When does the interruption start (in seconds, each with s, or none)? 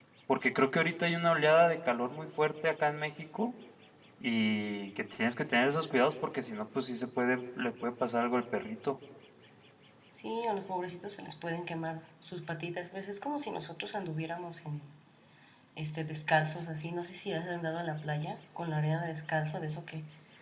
none